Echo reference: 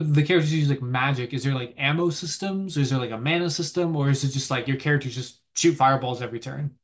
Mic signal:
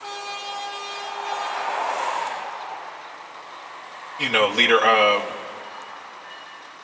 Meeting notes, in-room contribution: present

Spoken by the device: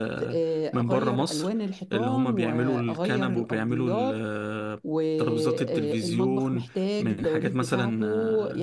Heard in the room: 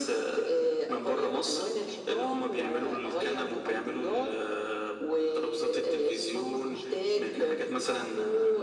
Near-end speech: none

